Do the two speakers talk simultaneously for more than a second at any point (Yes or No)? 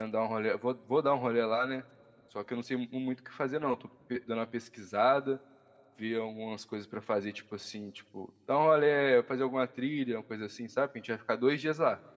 No